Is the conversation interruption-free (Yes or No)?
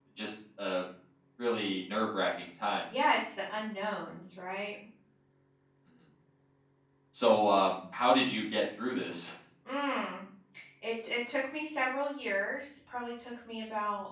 Yes